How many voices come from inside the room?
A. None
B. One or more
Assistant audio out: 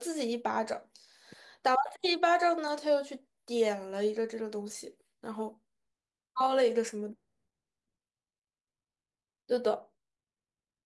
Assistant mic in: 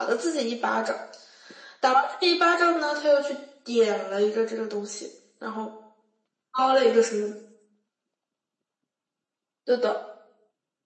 A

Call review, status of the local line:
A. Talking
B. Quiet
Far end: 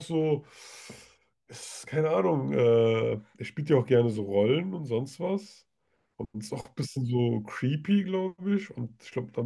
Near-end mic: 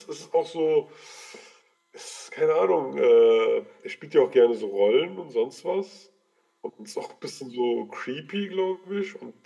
B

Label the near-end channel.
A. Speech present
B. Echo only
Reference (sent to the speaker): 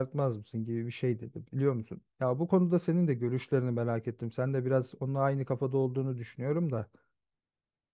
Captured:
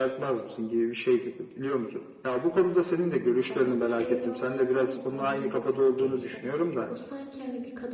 A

